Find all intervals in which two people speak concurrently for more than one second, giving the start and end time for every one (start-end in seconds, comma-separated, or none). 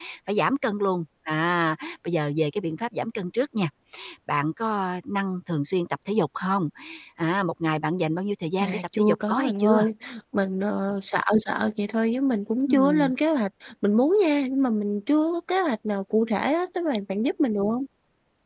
8.6-9.9